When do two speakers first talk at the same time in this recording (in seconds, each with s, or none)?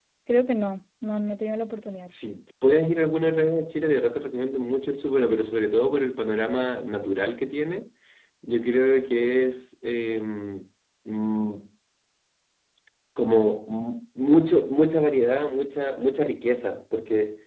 none